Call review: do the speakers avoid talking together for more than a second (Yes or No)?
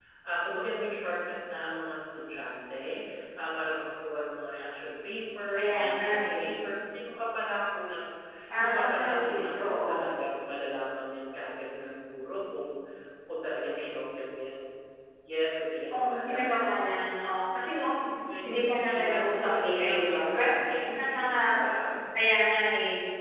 No